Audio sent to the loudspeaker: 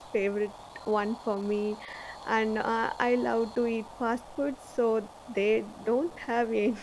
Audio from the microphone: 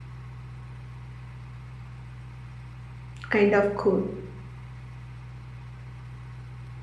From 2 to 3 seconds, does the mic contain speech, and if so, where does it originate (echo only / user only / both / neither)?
neither